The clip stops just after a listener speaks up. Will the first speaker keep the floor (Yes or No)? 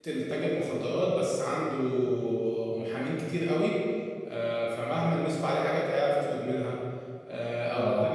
Yes